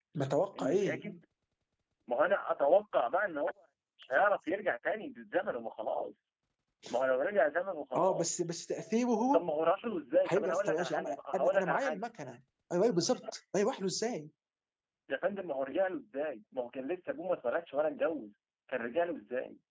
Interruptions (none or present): present